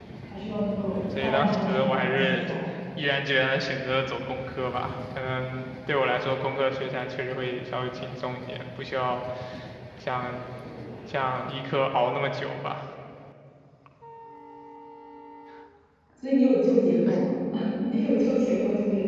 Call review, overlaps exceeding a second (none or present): present